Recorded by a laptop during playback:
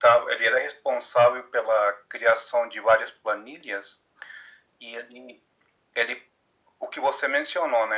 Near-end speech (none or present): none